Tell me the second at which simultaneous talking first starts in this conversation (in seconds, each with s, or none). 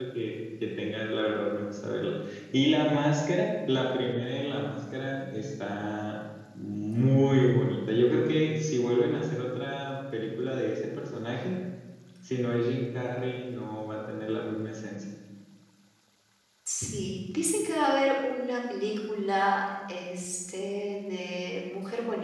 none